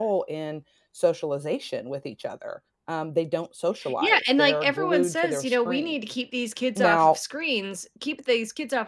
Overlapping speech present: Yes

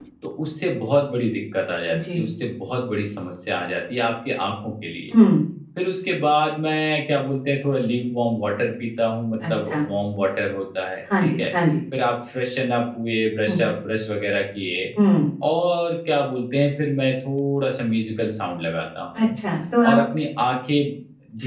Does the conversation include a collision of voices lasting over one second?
No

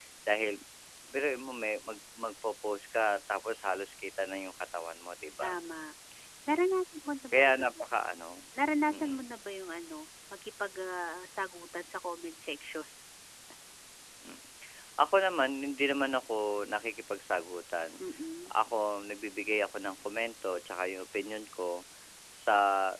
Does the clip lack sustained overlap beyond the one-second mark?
Yes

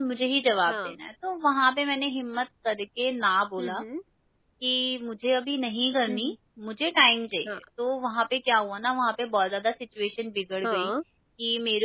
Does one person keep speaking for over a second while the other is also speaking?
No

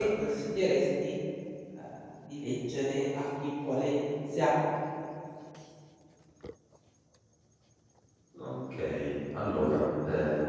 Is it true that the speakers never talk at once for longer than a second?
Yes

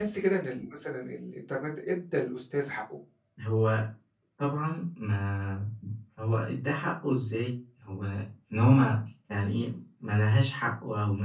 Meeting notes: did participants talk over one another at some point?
No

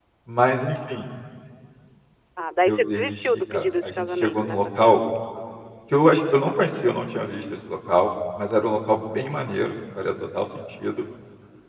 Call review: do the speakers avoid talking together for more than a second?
No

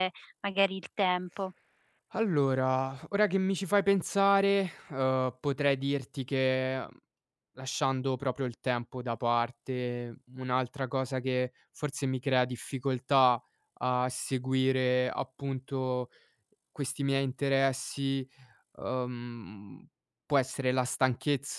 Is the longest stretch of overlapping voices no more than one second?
Yes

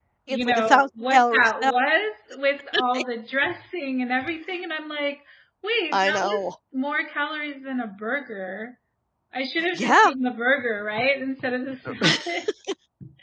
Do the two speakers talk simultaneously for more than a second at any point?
Yes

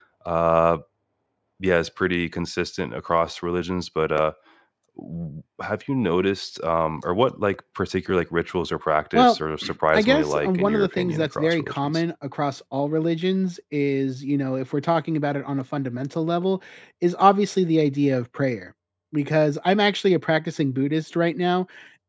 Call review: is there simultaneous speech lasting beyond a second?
Yes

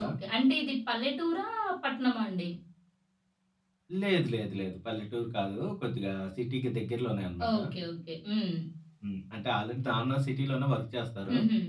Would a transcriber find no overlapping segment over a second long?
Yes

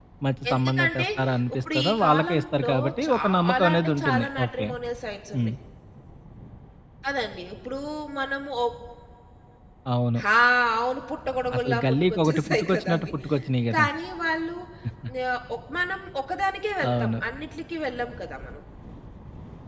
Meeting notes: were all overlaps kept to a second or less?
No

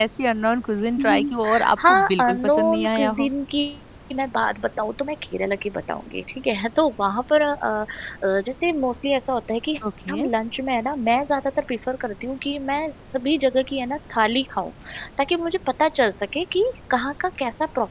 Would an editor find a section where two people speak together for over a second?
Yes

